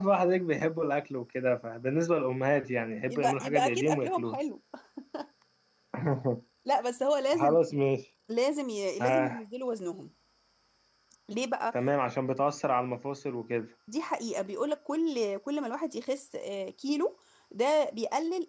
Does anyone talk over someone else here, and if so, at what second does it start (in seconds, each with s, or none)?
3.1 s